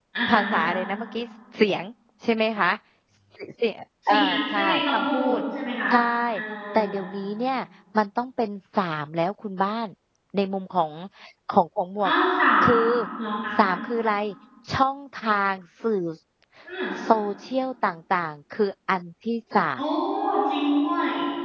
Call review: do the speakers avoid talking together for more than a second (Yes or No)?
No